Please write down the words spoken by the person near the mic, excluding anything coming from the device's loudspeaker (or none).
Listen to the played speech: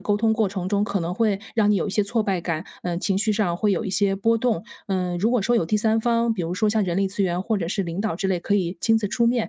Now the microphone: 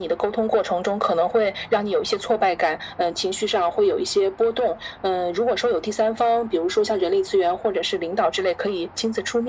none